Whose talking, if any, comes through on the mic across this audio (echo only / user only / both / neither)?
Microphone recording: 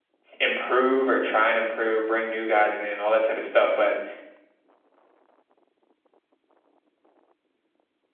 user only